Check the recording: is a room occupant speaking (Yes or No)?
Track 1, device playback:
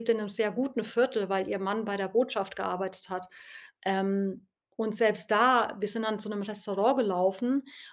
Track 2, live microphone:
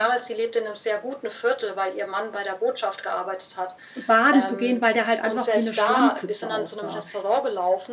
Yes